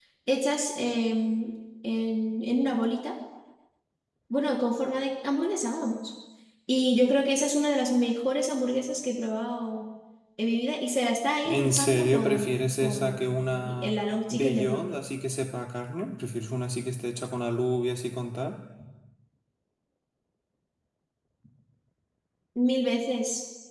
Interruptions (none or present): present